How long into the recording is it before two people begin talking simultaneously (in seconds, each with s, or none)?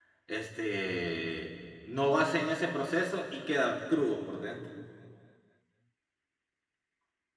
none